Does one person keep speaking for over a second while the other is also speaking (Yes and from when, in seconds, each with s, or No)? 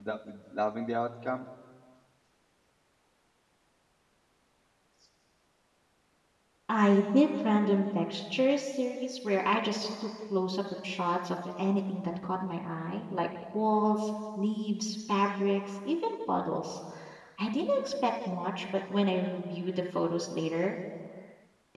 No